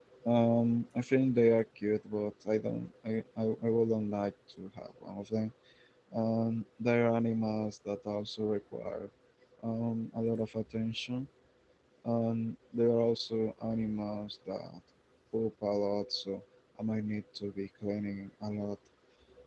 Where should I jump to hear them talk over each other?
none

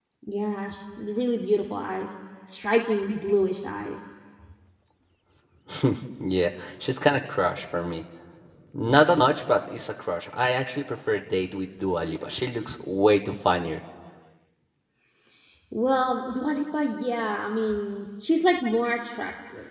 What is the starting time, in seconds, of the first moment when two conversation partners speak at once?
none

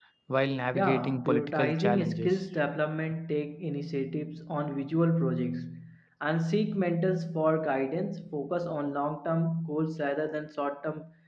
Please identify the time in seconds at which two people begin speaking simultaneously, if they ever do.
1 s

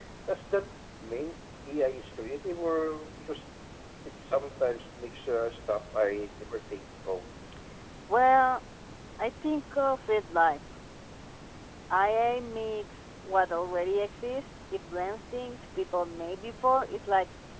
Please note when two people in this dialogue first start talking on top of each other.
none

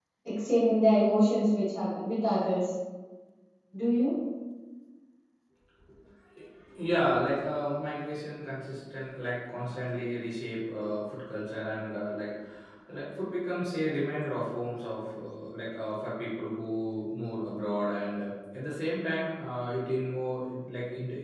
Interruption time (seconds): none

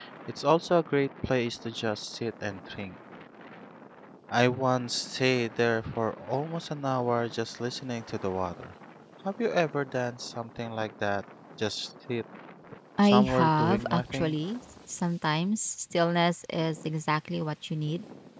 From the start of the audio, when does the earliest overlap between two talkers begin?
13 s

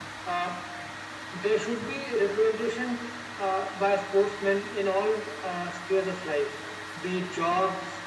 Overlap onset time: none

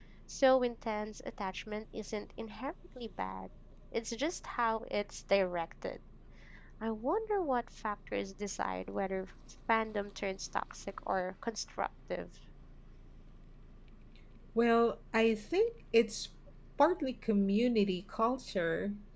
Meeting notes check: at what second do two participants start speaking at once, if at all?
none

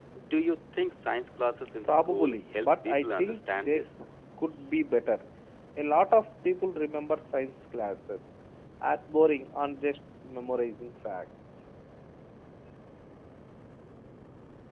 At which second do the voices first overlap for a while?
2 s

